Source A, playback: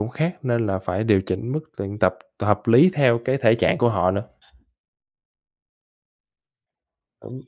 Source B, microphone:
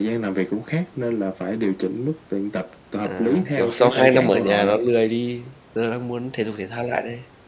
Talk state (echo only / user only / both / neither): both